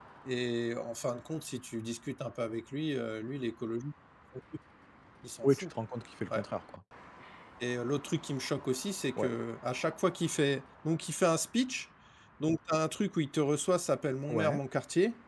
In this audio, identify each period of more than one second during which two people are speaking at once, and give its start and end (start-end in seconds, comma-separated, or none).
none